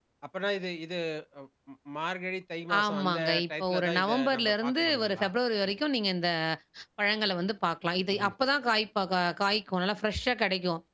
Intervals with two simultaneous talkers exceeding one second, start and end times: 2.8-5.3

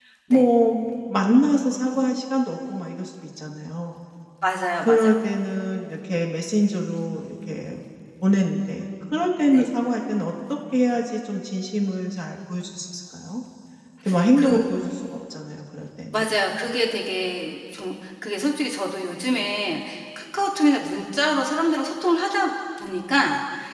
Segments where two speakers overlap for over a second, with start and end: none

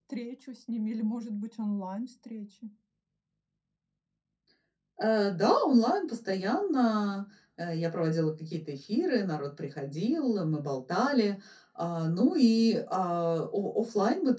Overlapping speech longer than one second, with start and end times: none

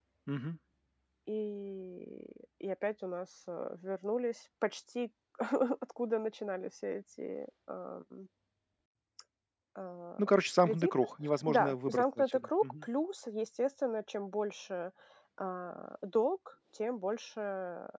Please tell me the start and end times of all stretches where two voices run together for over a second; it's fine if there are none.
11.5-12.9

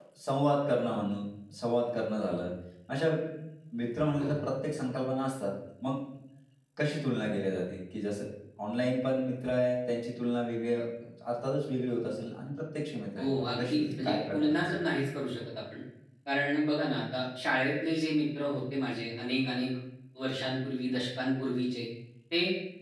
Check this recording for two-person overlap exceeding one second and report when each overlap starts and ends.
13.2-14.7

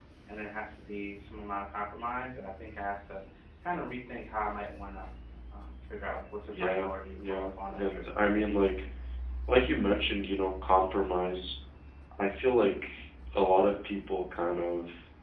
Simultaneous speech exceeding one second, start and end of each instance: 6.5-8.4

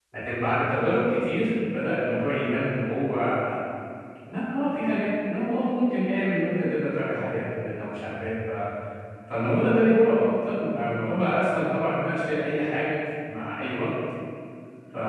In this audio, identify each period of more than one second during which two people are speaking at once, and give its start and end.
none

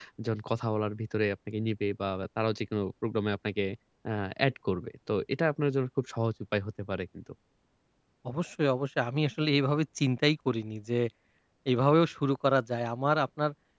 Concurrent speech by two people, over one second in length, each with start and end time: none

